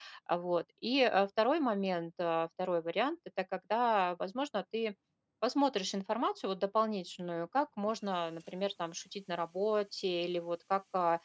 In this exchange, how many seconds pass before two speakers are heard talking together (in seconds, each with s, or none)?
none